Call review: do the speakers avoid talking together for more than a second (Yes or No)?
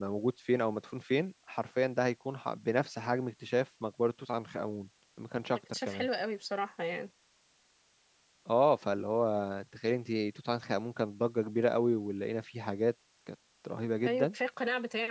Yes